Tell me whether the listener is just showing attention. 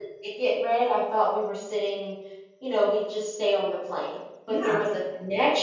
Yes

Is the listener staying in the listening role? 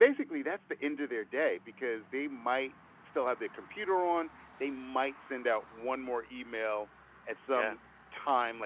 Yes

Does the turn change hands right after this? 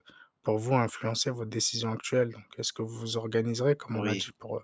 No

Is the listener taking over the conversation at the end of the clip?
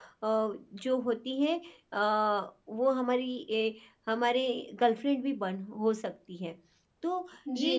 Yes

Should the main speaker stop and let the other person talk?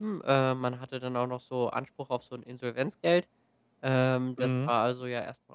No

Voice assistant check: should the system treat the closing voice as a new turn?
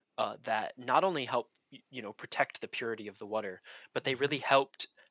No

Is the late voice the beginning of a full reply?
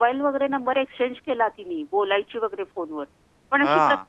No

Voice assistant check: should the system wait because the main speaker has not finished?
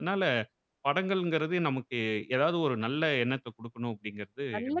No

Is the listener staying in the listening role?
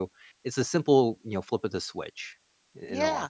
No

